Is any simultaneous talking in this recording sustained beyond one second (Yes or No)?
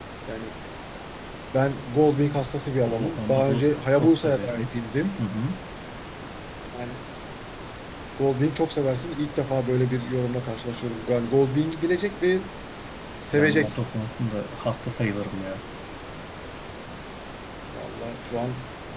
Yes